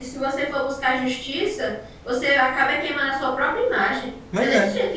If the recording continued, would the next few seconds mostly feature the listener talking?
No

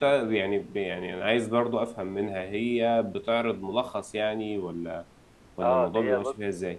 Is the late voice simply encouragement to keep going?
No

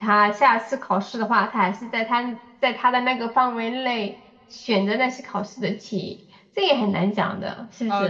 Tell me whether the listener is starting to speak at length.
Yes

